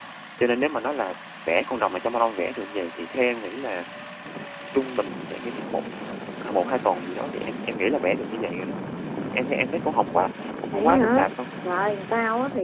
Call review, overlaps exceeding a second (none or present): none